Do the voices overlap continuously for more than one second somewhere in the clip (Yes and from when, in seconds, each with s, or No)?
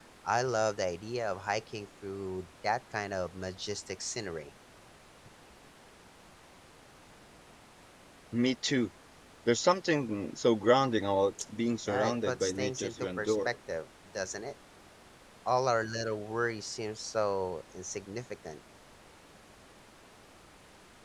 Yes, from 11.9 s